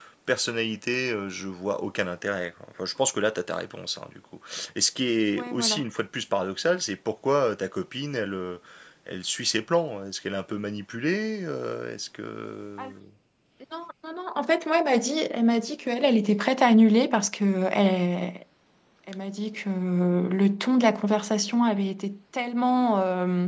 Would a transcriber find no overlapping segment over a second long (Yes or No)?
Yes